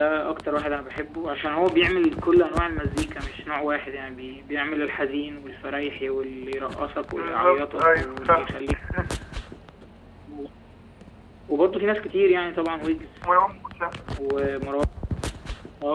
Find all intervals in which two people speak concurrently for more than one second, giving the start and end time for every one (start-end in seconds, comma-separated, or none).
7.2-8.6